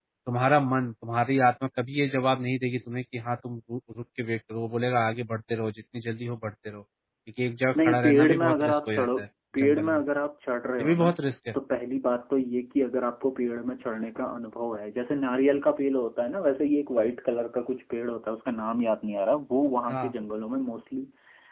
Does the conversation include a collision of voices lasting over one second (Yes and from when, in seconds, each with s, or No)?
Yes, from 7.8 s